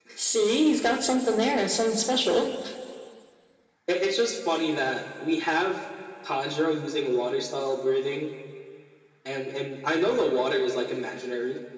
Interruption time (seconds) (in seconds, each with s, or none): none